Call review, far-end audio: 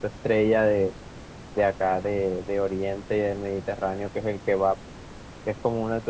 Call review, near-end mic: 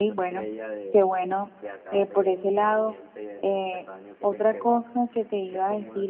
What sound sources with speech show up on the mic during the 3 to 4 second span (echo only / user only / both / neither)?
both